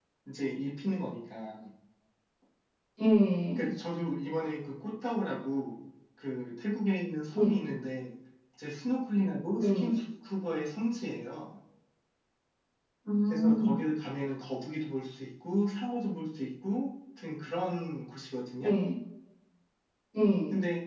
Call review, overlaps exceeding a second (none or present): none